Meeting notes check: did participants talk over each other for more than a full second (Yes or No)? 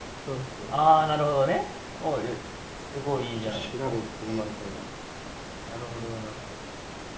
Yes